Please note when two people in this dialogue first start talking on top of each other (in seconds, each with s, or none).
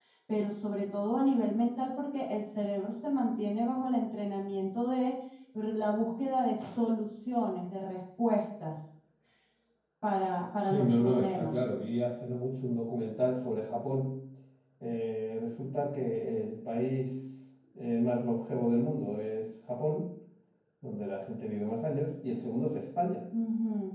10.6 s